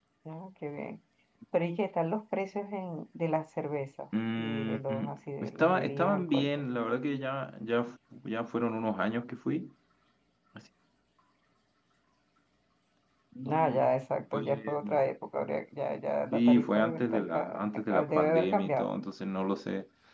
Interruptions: present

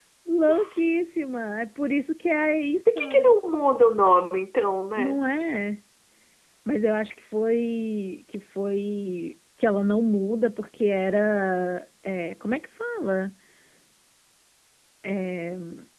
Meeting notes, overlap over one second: none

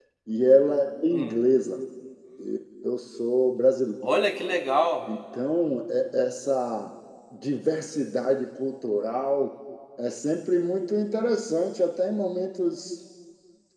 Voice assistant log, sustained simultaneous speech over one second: none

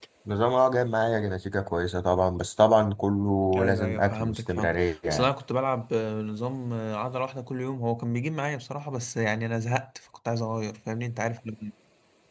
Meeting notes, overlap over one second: present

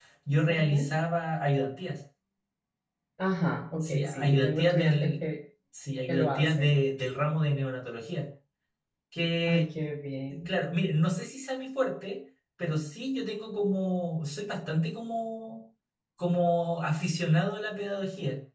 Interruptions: present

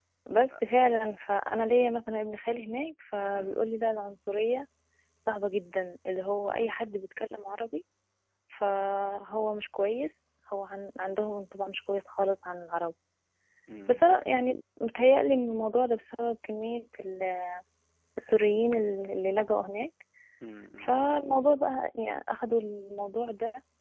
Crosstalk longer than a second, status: none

